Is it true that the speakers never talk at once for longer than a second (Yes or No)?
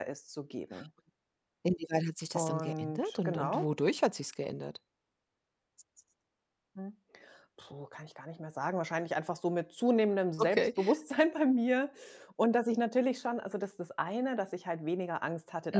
No